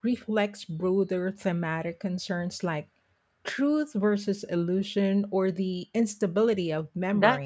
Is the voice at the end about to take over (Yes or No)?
Yes